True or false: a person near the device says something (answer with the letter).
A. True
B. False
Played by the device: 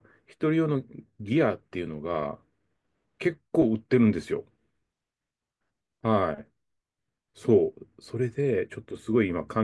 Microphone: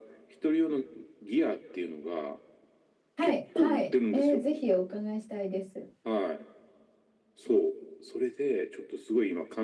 A